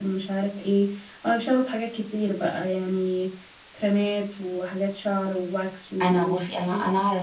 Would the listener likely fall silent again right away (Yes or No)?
No